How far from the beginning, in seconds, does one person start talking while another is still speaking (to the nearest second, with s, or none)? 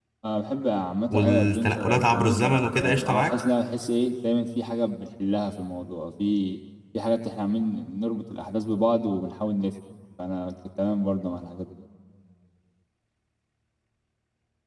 1 s